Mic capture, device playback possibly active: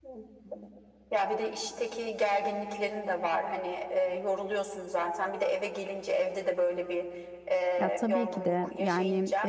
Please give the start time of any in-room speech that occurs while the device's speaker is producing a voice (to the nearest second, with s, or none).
8 s